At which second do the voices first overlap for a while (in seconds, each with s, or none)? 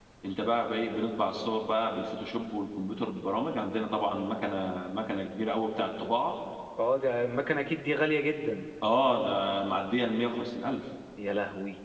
none